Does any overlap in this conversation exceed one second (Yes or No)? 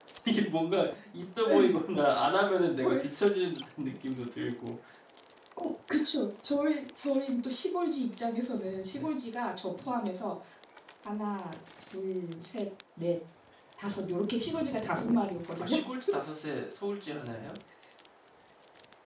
No